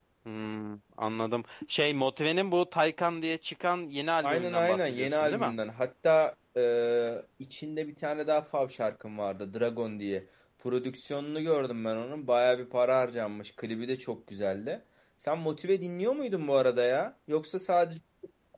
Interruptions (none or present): present